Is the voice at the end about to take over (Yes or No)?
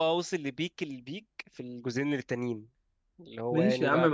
Yes